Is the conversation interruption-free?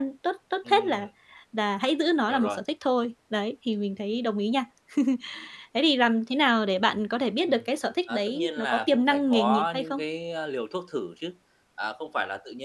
No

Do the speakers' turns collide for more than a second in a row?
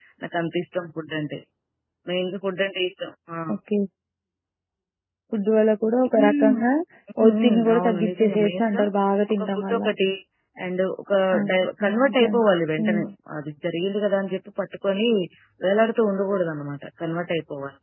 Yes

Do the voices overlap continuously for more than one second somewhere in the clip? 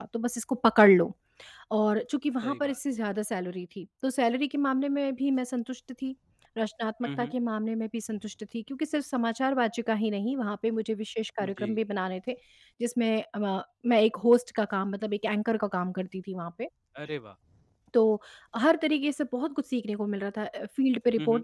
No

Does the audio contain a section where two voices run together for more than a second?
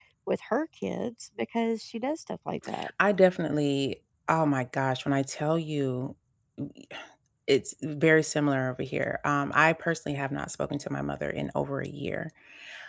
No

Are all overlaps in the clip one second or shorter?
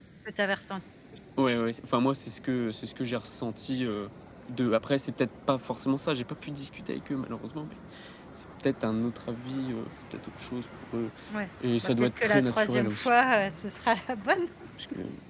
No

